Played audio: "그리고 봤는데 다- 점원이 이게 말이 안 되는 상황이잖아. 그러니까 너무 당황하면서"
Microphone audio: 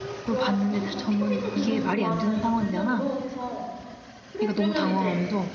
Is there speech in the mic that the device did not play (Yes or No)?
Yes